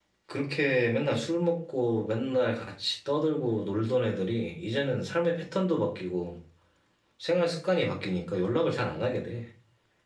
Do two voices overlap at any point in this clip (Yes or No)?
No